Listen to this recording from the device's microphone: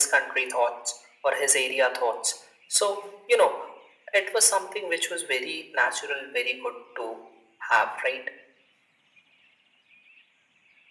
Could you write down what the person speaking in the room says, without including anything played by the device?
none

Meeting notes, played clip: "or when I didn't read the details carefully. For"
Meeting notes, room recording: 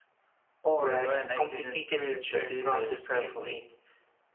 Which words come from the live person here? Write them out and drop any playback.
but a complicated return process can make

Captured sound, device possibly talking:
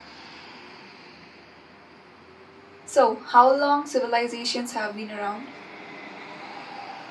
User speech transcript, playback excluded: So, how long civilizations have been around?

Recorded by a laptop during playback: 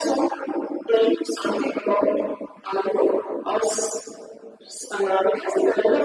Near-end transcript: none

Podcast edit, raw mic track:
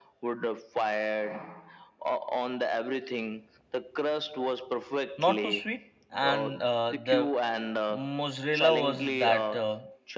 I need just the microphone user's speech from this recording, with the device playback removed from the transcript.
not too sweet, and uh, the mozzarella was that uh,

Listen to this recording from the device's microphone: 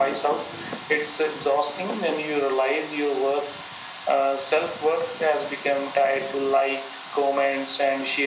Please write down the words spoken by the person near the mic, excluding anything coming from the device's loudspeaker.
none

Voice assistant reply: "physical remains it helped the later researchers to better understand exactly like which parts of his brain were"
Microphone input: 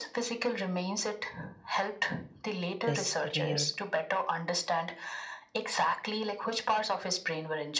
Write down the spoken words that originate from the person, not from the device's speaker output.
this rare

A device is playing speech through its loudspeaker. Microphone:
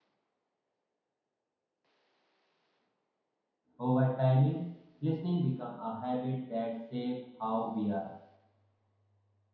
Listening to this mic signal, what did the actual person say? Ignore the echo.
Over timing, listening become a habit that shape how we are.

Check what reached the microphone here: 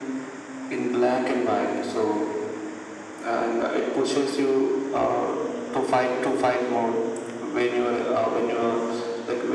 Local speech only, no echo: none

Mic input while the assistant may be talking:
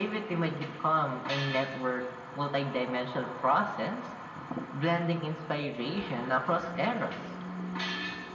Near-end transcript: none

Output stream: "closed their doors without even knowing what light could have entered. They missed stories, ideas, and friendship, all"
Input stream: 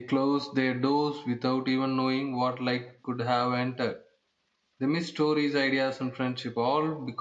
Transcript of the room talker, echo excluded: none

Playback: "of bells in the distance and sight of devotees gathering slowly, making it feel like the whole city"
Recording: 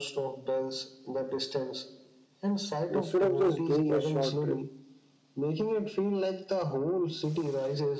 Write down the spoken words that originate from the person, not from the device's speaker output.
instead of just doing a short trip.

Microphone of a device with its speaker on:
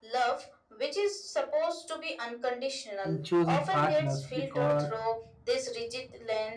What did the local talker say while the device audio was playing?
in choosing partners because

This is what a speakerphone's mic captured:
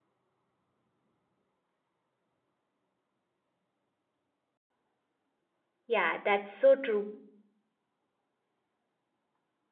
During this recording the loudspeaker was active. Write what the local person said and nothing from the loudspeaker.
Yeah, that's so true.

